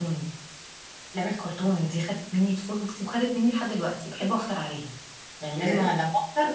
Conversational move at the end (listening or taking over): listening